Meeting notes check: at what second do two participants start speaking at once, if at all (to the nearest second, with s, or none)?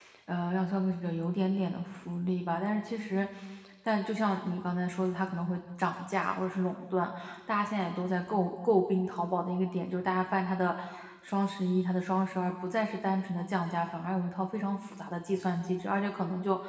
none